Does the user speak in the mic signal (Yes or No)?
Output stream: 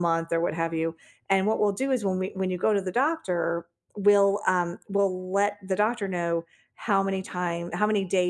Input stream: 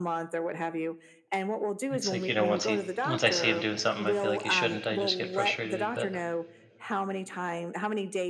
Yes